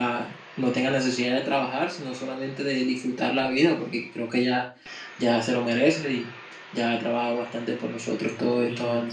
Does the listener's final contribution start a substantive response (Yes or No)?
Yes